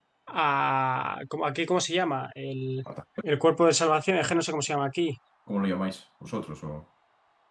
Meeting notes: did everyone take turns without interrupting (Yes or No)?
Yes